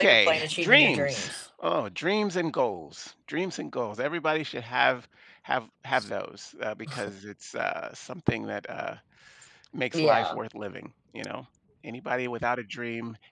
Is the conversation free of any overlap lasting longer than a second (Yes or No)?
No